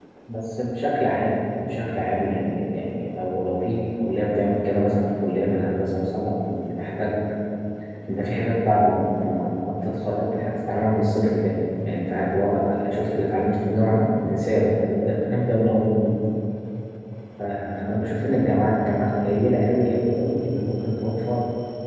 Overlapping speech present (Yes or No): No